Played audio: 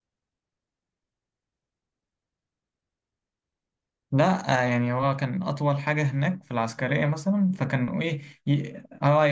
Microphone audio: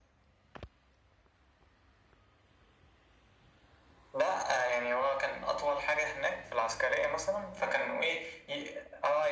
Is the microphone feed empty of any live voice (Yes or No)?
Yes